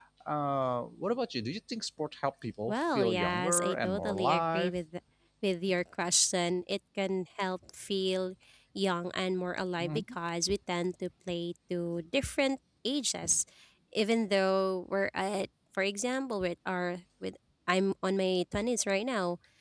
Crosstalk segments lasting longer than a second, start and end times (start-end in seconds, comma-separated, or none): 2.7-4.7